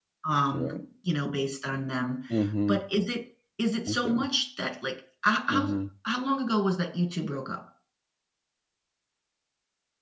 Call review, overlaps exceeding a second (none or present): none